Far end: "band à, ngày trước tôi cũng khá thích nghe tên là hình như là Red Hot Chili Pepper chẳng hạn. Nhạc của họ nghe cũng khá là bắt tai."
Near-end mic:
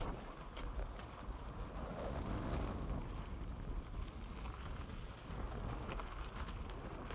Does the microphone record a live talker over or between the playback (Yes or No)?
No